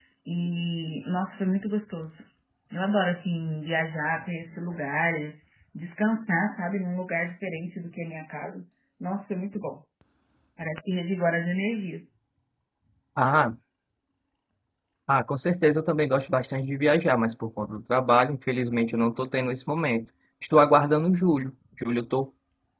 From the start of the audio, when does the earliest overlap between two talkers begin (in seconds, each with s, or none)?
none